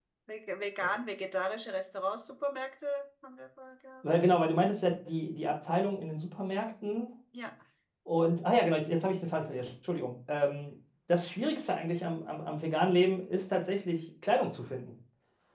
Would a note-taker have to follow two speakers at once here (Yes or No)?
No